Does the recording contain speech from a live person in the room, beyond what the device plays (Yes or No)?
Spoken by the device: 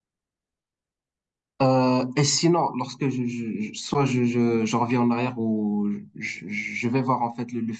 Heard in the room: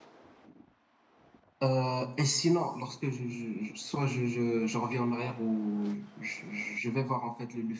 No